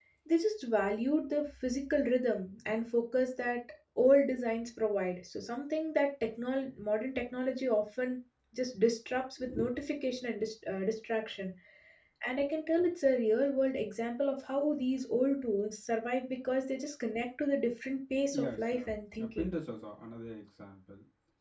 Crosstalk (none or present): present